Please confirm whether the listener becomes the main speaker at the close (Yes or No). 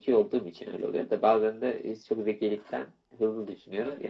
Yes